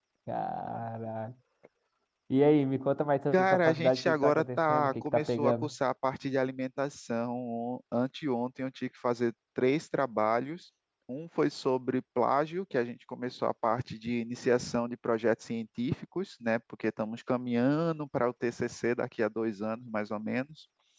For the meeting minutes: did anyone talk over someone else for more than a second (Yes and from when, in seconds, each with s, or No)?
Yes, from 3.3 s